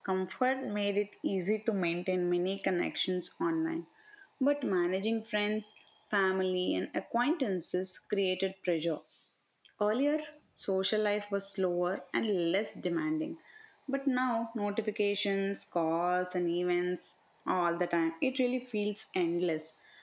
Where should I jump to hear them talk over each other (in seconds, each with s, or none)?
none